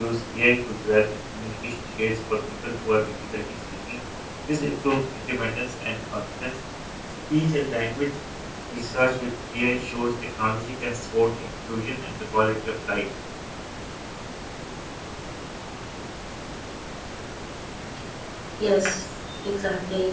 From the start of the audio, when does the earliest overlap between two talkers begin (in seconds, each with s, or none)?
none